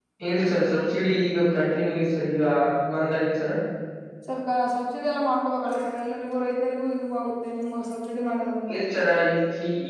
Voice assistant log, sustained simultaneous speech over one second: none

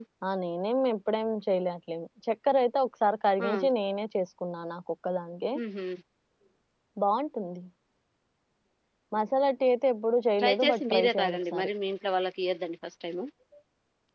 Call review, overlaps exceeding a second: present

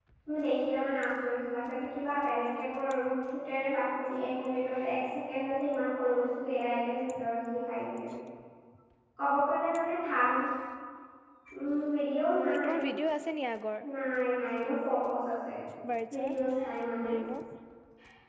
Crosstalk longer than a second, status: none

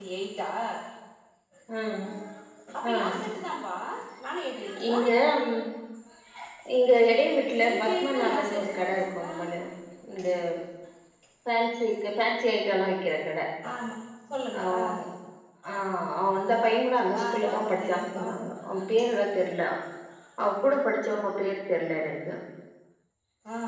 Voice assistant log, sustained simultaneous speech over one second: present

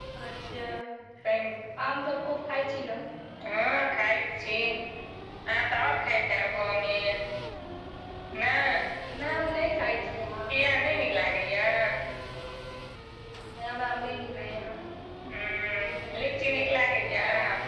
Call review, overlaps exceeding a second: none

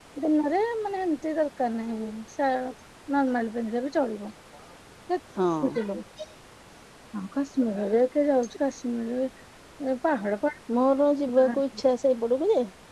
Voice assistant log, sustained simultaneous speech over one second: none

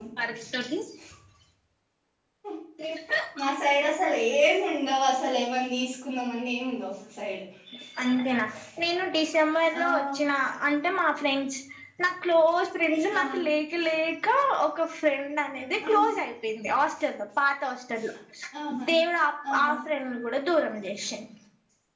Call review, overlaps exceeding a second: none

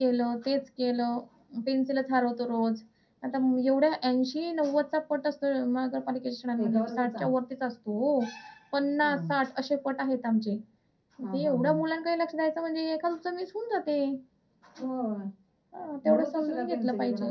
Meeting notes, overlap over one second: present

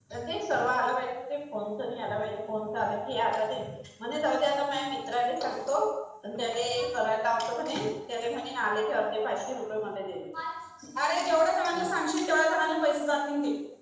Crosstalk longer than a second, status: none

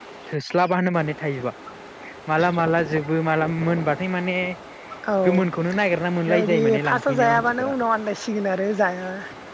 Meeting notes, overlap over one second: present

